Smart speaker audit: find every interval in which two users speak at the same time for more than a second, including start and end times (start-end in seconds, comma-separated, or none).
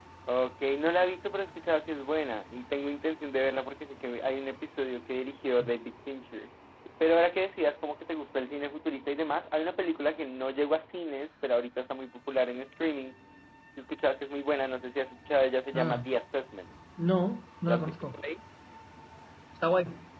none